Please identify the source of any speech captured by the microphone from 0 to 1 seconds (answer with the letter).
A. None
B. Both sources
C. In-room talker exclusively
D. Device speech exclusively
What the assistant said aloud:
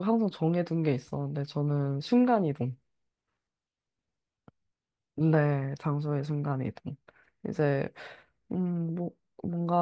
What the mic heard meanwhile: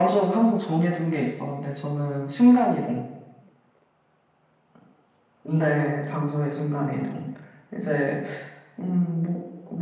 D